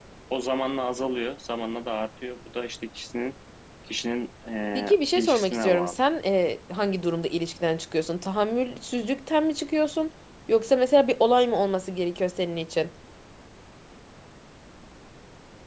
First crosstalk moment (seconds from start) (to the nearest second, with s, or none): 5 s